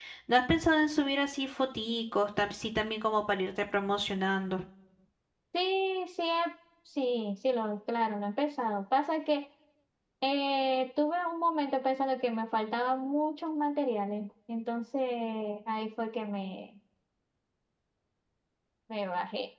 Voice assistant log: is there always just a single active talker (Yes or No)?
Yes